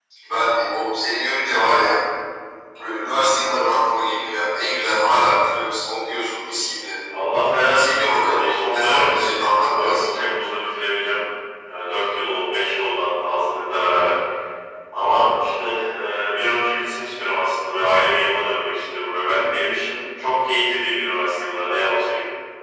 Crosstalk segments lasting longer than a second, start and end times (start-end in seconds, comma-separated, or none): 7.7-10.0